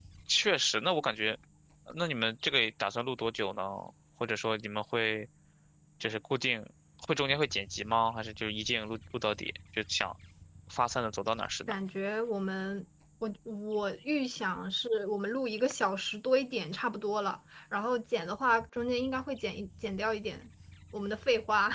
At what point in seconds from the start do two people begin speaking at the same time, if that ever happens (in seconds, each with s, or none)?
none